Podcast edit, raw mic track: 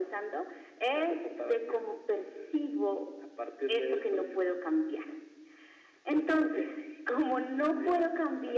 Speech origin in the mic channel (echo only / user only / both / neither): echo only